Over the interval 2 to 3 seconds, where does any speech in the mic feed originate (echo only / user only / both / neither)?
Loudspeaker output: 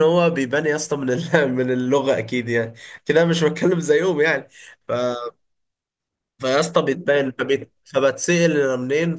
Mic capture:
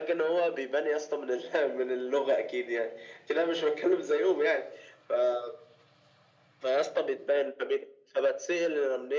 echo only